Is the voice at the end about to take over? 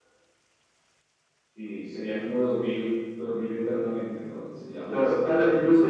Yes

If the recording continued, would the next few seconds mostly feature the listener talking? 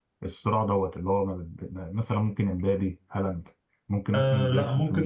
Yes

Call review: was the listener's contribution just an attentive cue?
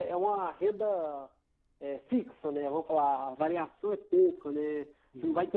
Yes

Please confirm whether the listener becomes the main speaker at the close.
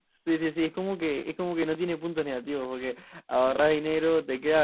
No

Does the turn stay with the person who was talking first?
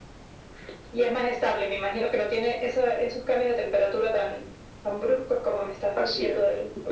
No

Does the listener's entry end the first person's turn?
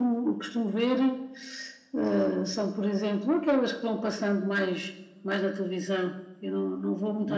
No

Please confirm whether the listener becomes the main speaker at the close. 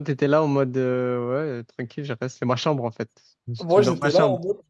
Yes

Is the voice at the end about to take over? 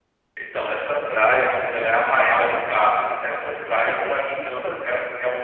No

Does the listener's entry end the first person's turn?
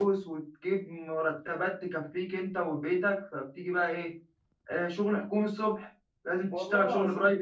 No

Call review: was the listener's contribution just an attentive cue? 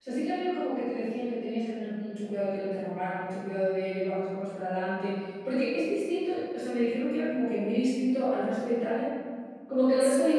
Yes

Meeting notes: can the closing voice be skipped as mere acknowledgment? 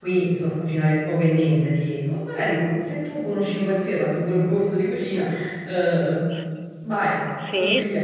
No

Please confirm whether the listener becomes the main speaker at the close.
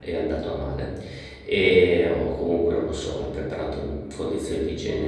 No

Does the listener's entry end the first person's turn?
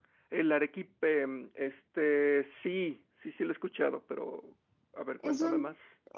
Yes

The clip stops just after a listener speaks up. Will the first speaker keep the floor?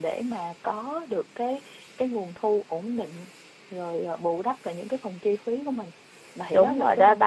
No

